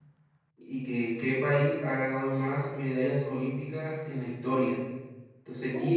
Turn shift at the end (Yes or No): No